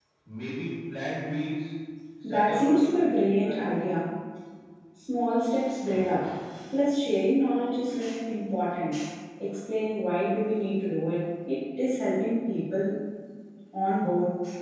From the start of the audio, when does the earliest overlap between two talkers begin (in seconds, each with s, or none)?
2.3 s